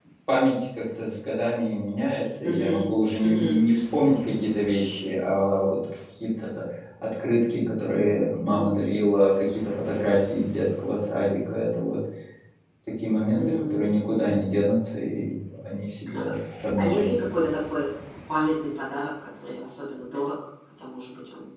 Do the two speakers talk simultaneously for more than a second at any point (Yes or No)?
No